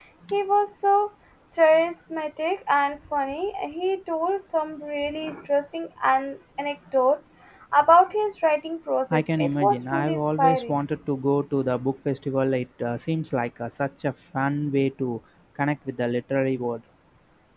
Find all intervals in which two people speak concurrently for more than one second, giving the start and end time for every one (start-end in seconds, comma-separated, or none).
9.1-10.8